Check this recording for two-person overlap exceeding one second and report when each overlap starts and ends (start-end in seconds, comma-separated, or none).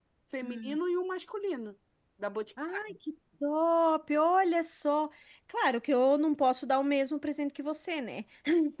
none